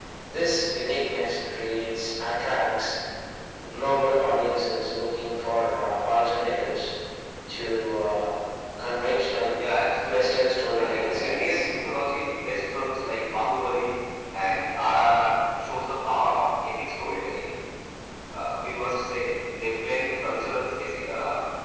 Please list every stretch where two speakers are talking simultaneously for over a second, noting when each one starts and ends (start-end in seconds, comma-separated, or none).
10.1-11.7